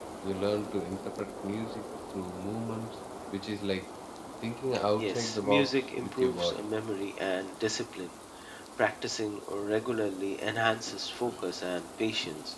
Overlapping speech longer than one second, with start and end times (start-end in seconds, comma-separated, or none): 5.0-6.7